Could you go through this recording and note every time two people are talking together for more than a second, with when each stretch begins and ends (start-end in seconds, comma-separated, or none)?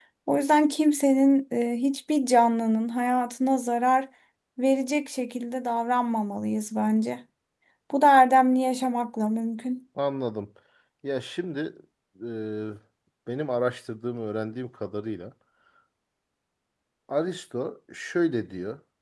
none